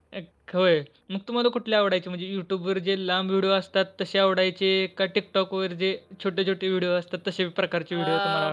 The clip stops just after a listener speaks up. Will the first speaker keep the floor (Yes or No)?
No